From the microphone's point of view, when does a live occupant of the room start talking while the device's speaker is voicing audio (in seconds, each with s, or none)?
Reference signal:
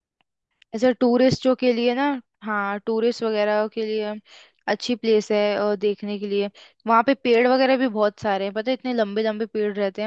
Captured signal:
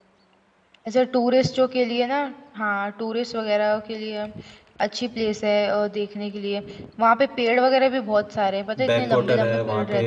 8.8 s